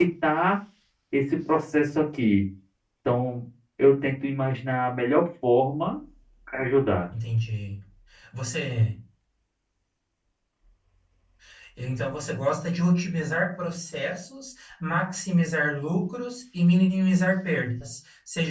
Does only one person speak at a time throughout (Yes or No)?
Yes